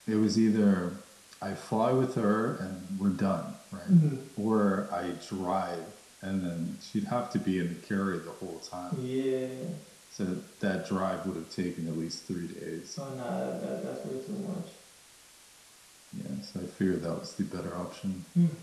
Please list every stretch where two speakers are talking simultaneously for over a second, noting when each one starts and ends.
none

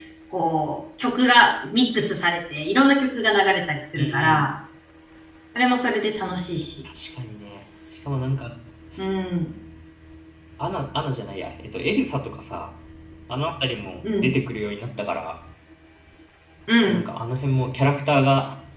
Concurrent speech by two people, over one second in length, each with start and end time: none

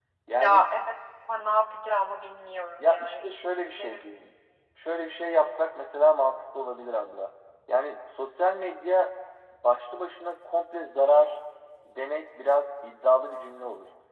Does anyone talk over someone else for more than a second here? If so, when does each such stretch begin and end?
2.8-4.0

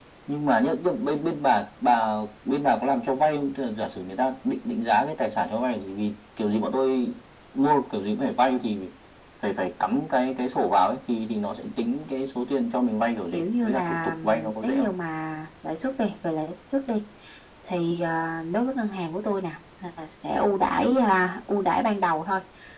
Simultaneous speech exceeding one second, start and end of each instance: 13.3-14.9

